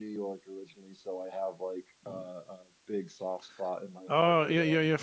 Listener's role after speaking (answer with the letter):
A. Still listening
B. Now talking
B